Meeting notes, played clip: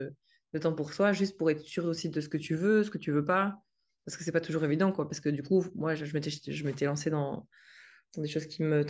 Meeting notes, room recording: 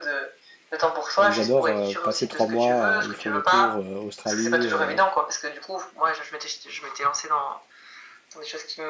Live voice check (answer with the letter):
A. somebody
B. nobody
A